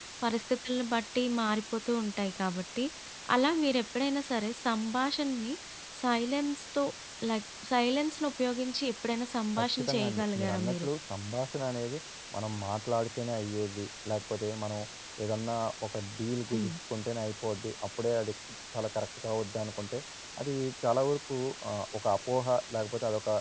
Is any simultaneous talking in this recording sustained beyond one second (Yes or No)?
Yes